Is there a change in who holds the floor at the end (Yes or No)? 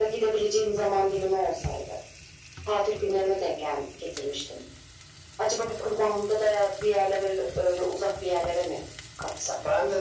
Yes